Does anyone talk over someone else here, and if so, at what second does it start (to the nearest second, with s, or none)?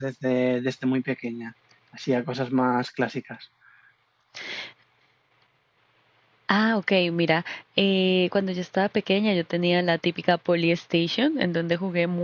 none